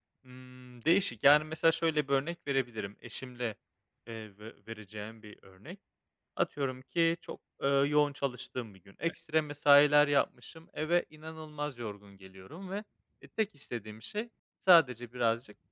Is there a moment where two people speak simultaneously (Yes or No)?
No